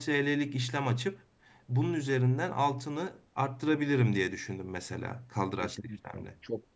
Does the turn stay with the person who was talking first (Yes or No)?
No